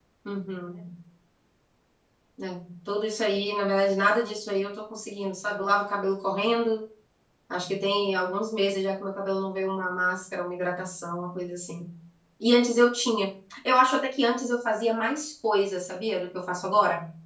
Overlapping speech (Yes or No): No